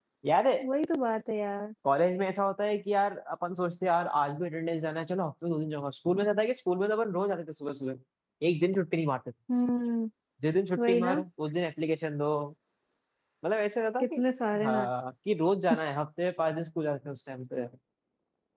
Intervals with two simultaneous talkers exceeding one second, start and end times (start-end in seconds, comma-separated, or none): none